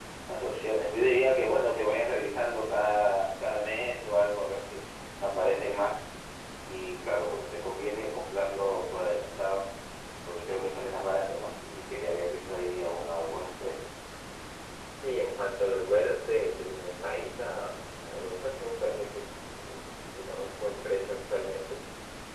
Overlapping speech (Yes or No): No